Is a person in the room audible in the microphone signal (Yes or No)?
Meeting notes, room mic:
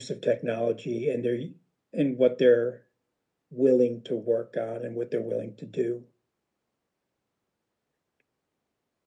No